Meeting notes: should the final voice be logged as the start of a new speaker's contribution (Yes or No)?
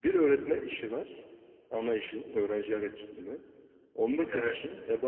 No